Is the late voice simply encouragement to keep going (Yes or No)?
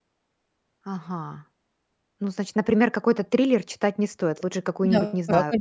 No